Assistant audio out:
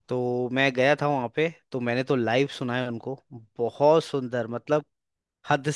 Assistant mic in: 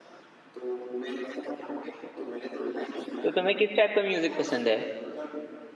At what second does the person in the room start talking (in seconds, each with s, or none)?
3.2 s